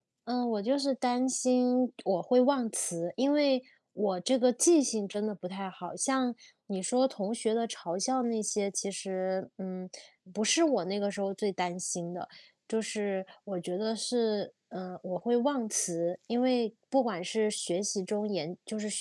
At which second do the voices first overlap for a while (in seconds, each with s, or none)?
none